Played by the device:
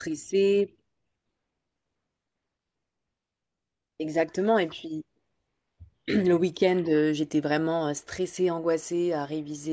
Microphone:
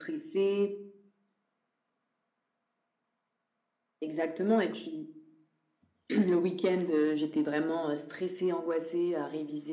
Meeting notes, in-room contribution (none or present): none